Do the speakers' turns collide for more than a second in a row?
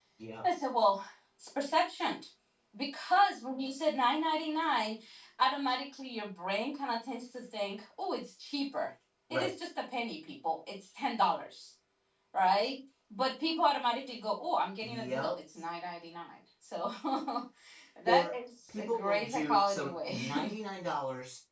Yes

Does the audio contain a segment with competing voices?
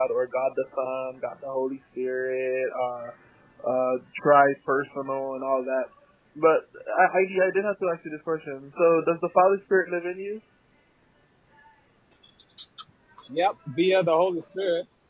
No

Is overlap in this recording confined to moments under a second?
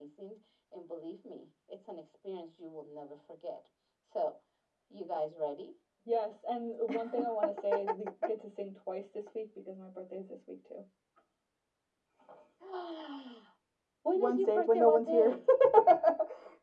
No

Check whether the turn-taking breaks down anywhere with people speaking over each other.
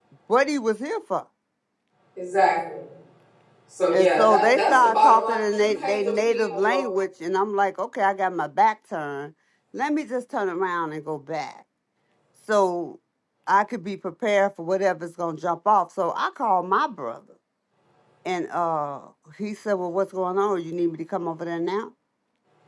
Yes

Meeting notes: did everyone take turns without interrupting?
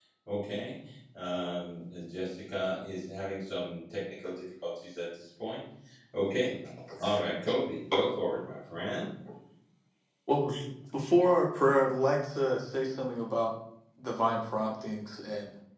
Yes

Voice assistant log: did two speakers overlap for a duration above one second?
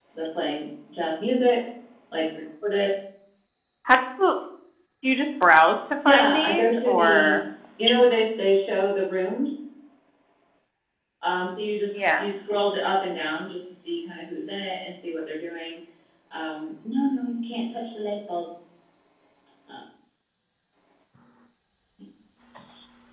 Yes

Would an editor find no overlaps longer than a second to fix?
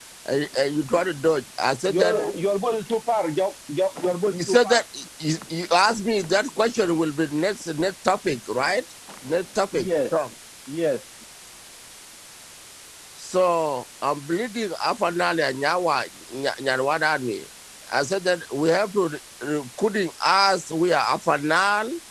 Yes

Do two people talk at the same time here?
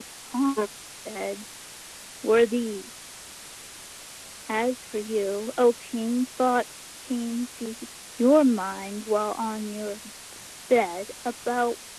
No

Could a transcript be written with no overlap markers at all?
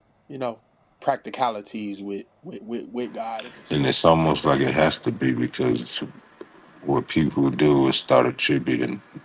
No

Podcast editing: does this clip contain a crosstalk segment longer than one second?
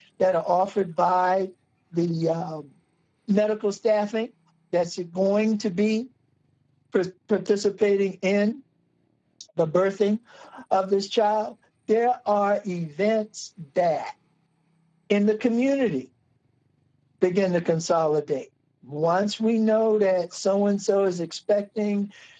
No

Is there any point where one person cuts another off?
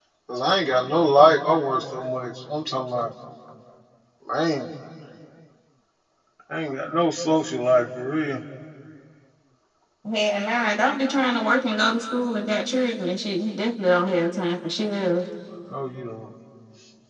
No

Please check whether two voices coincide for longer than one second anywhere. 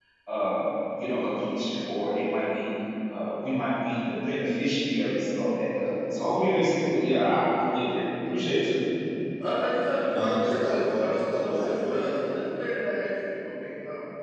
Yes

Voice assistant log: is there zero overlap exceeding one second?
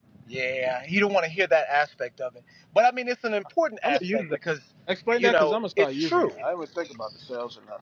No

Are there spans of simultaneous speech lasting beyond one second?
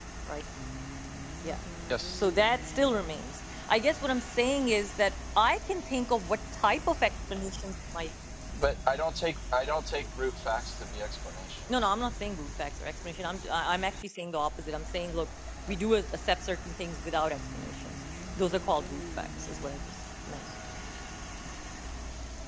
No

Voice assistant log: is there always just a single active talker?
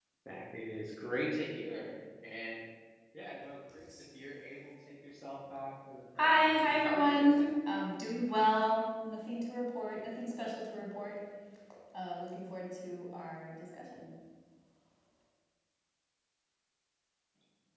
No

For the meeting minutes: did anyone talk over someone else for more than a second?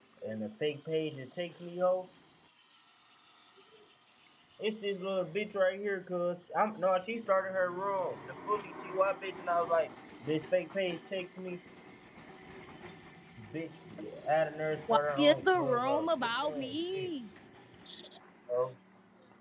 Yes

